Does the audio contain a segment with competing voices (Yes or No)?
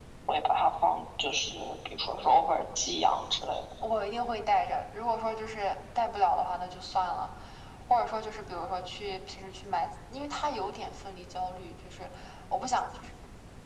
No